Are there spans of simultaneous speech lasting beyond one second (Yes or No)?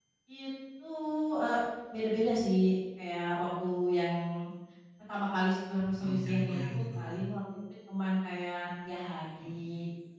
Yes